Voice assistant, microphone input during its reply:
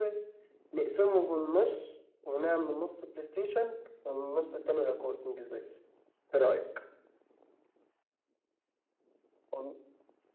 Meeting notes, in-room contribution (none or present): none